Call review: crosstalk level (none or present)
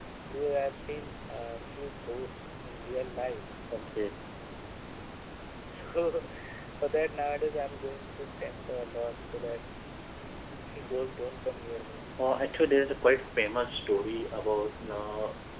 none